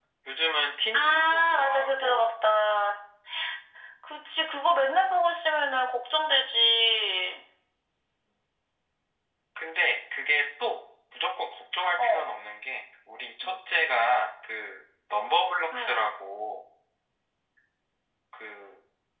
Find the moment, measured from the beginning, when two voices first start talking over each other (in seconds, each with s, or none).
0.9 s